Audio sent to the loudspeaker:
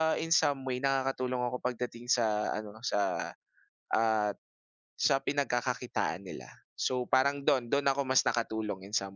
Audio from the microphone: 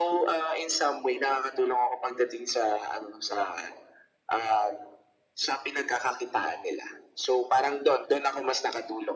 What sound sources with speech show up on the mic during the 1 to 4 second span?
echo only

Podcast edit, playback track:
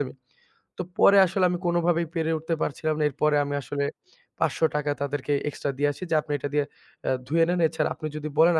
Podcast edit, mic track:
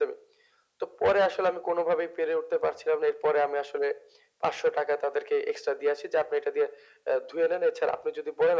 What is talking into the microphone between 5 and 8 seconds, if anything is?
echo only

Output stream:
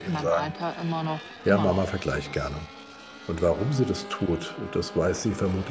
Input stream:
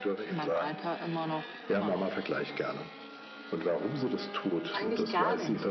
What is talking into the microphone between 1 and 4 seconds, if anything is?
echo only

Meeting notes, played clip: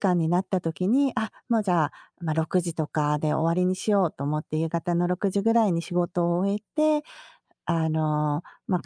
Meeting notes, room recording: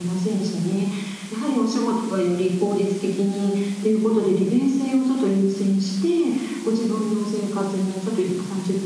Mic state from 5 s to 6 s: user only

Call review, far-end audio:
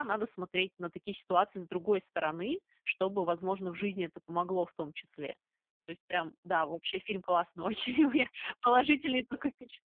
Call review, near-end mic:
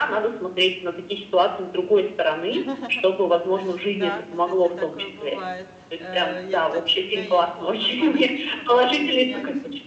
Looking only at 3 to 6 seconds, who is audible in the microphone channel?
both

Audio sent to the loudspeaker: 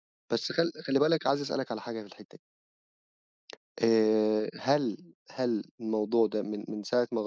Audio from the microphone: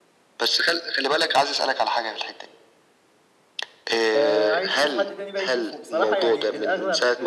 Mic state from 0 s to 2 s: echo only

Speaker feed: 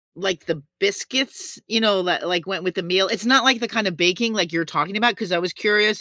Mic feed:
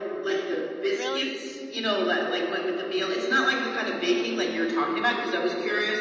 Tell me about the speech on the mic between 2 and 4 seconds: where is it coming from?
echo only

